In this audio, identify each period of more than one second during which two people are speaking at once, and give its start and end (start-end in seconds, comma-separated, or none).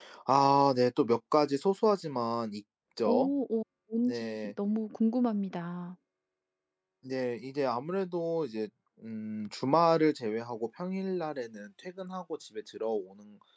none